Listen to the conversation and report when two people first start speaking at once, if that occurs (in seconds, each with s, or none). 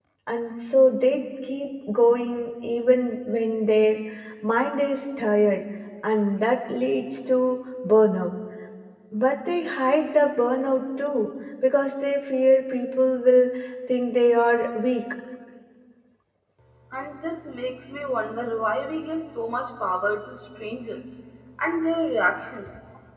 none